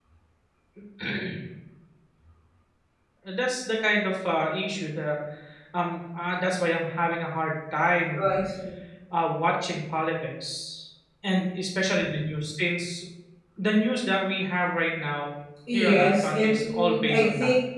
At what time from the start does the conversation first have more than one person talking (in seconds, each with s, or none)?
15.7 s